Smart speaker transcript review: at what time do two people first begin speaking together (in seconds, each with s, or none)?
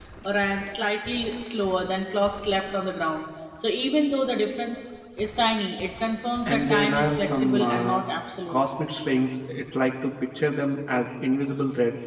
6.4 s